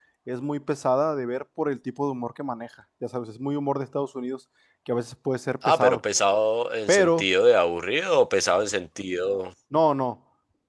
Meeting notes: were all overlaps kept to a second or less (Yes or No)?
Yes